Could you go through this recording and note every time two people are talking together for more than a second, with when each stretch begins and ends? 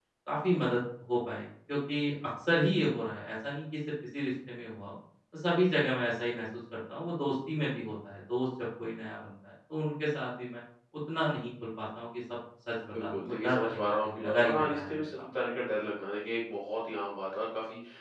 13.0-15.2

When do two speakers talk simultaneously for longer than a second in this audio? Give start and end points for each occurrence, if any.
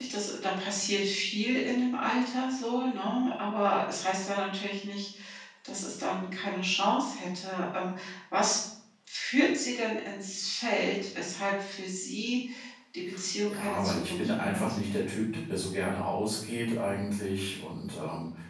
13.5-14.8

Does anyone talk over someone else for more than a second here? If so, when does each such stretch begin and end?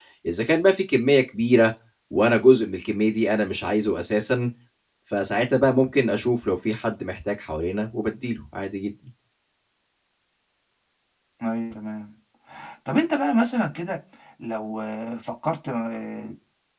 none

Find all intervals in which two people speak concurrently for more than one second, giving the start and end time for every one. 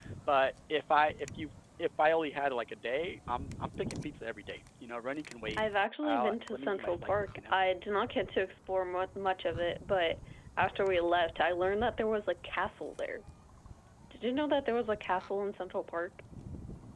6.0-7.6

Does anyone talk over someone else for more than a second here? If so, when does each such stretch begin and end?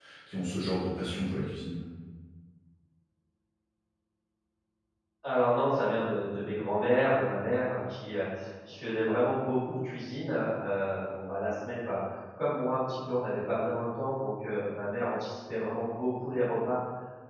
none

